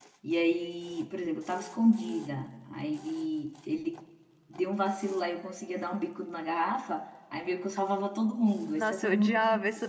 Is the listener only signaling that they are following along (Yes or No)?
No